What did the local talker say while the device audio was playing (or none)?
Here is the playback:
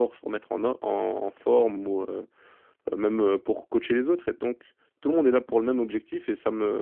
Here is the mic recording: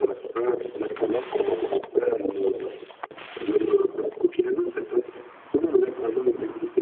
none